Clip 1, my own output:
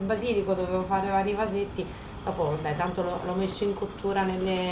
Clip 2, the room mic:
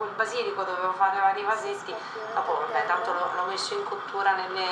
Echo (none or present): present